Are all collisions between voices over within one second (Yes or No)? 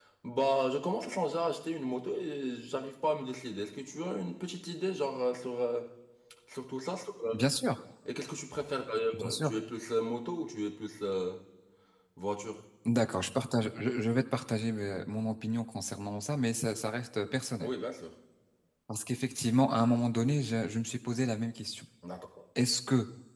Yes